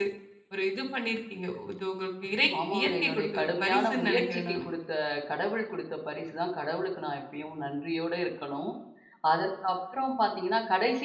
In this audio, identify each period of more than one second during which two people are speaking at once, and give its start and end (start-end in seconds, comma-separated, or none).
2.7-4.6